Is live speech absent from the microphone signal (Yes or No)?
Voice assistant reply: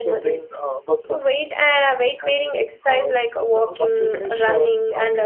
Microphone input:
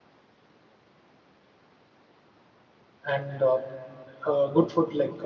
No